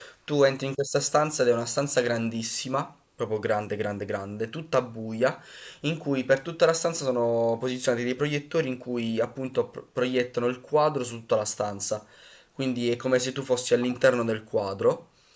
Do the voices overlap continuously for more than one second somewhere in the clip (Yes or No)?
No